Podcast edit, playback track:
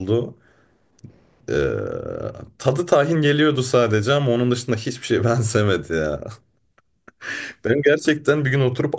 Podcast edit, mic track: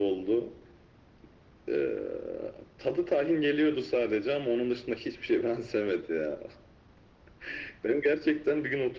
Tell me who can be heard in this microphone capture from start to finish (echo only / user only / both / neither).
echo only